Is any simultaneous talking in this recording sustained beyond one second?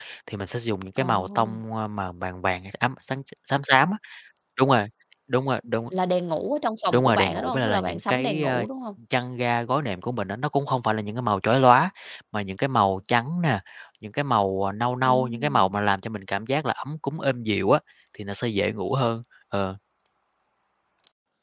Yes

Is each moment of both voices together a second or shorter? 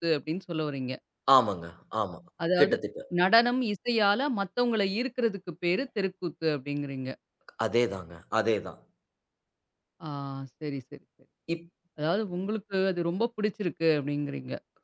Yes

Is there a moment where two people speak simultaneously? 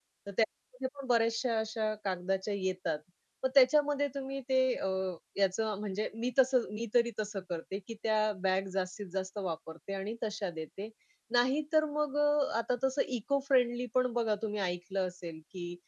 No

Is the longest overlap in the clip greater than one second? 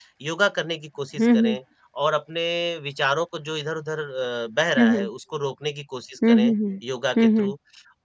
No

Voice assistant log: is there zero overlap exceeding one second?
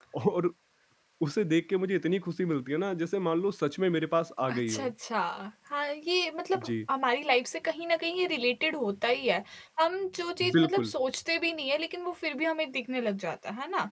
Yes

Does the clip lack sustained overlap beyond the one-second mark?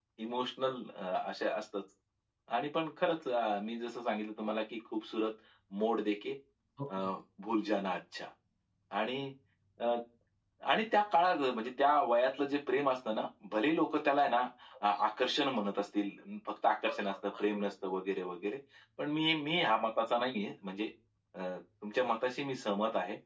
Yes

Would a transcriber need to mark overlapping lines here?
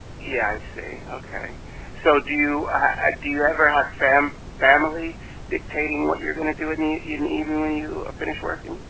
No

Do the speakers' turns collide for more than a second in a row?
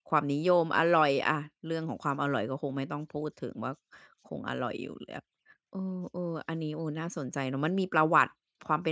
No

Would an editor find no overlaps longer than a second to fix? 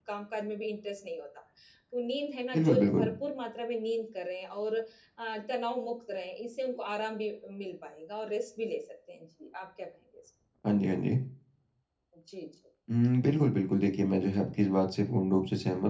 Yes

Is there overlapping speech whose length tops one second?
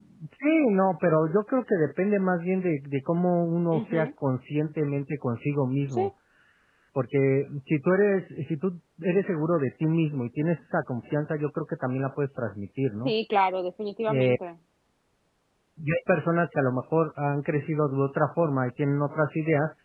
No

